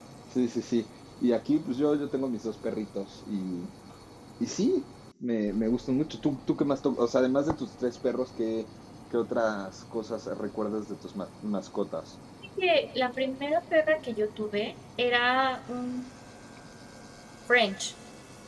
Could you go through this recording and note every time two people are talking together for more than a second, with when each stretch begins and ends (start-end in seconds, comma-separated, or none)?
none